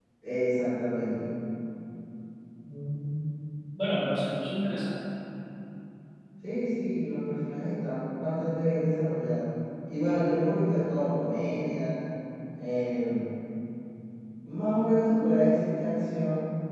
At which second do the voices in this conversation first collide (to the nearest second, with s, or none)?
none